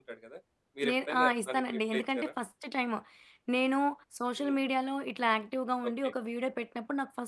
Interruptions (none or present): present